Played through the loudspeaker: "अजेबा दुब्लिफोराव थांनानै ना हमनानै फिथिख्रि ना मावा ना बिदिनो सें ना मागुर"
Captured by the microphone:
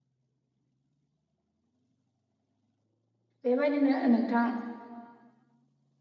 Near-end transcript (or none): बेबायदिनो नोंथां